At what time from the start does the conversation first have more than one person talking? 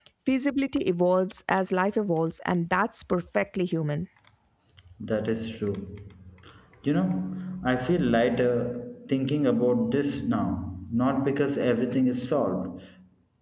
none

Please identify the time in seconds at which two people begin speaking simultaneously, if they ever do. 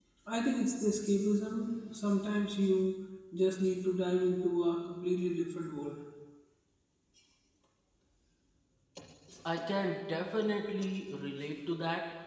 none

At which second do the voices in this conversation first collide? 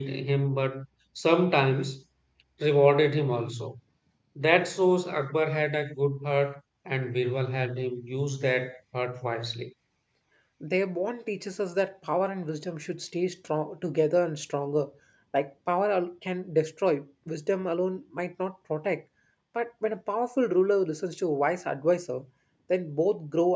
none

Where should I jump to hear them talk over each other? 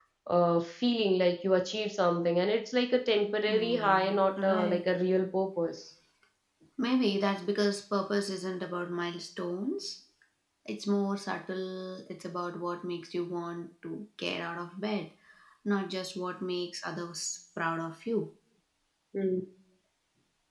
3.5 s

